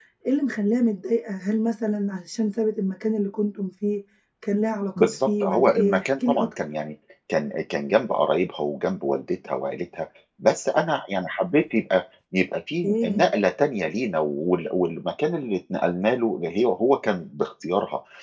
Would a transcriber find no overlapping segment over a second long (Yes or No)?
No